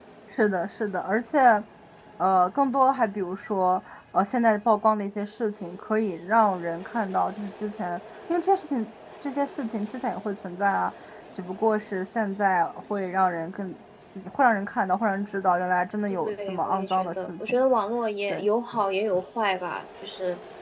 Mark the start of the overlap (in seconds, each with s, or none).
16.1 s